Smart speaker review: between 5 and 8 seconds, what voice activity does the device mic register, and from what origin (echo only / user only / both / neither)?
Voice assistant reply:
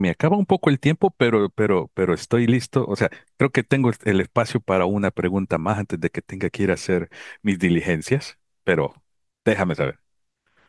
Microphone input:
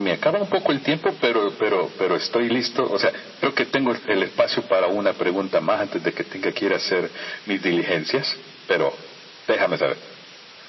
echo only